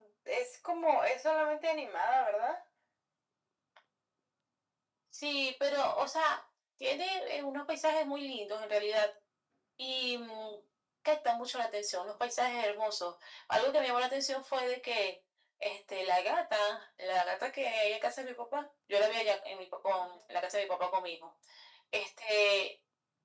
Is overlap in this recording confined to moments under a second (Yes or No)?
Yes